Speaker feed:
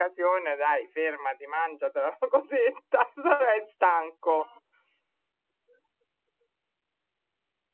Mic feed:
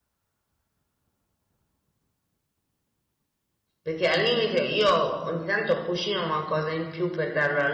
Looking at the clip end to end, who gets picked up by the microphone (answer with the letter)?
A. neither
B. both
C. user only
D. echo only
C